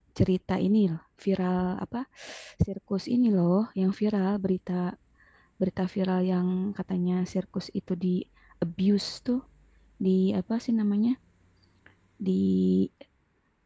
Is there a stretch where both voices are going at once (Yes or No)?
No